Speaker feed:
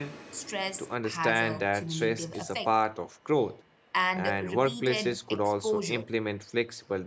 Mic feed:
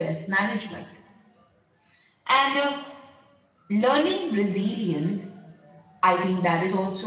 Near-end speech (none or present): present